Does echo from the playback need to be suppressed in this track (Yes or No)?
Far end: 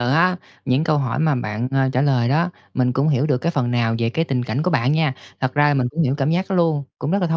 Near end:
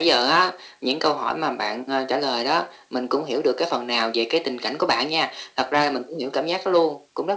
Yes